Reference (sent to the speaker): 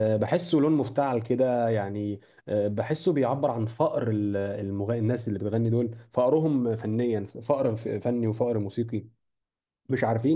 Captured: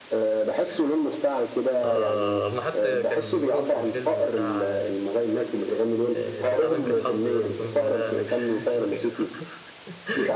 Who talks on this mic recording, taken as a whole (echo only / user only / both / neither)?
both